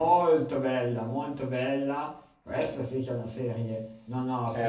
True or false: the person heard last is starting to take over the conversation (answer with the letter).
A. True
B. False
A